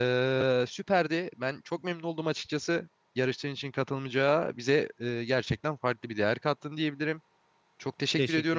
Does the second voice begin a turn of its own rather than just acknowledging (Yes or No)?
No